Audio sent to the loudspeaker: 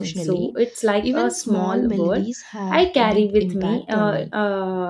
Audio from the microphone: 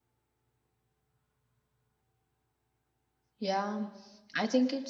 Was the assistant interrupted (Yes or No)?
Yes